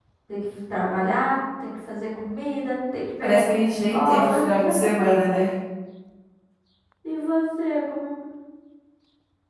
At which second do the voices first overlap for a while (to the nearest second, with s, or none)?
3 s